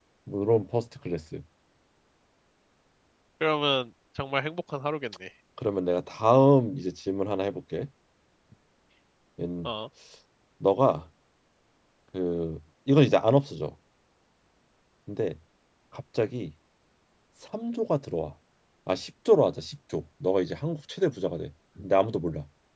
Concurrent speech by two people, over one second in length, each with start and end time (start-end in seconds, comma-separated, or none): none